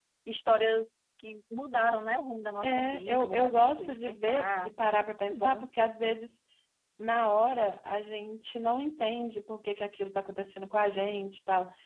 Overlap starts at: 2.6 s

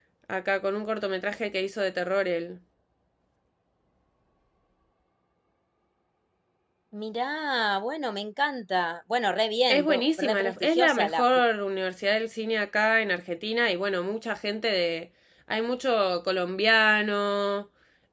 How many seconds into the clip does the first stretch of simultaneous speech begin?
9.7 s

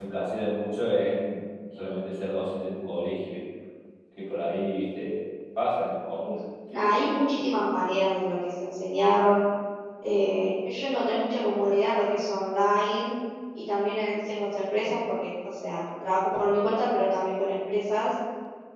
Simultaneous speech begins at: none

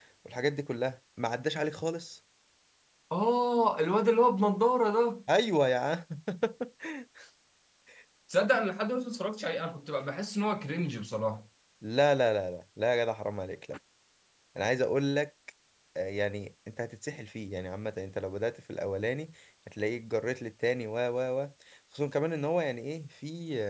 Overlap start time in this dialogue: none

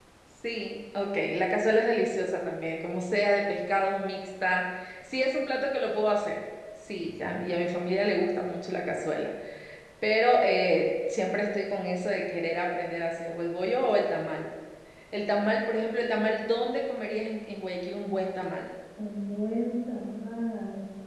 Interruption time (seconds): none

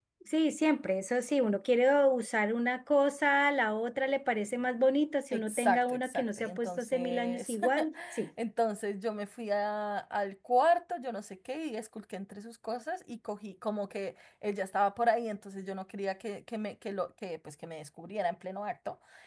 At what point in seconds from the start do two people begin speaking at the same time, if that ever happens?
5.3 s

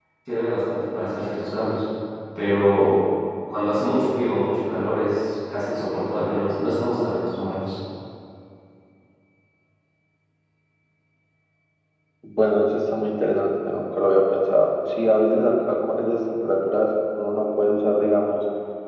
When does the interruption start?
none

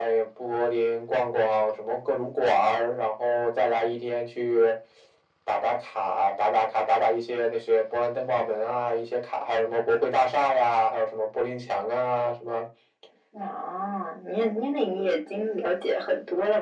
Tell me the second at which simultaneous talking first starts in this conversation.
none

